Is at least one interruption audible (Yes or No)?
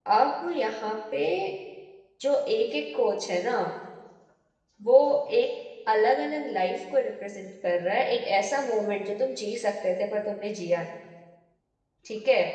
No